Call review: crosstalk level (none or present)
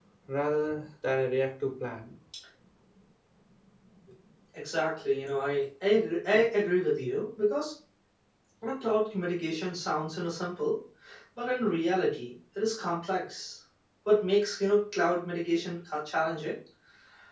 none